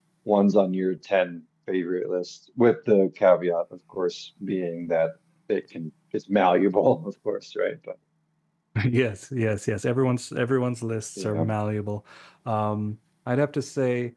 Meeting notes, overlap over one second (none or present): none